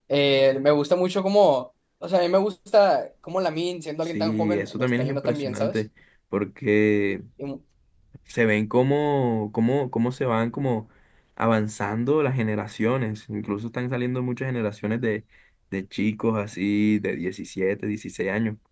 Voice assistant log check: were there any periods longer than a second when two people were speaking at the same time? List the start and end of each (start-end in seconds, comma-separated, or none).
4.0-5.8